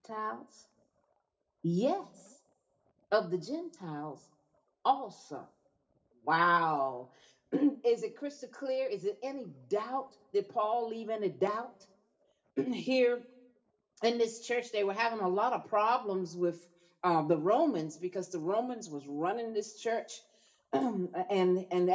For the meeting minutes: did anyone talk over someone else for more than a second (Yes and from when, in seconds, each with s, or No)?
No